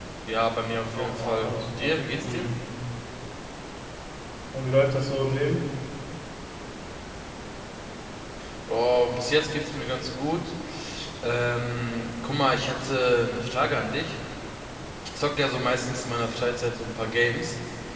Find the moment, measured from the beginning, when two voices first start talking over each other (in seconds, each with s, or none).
0.9 s